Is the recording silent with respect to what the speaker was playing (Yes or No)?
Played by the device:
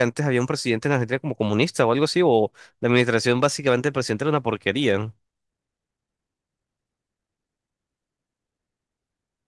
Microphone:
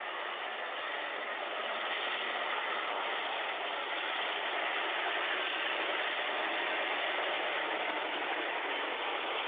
Yes